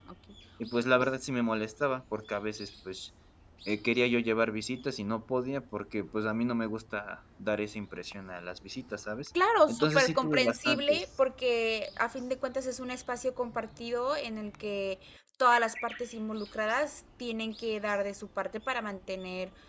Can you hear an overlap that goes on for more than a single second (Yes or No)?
Yes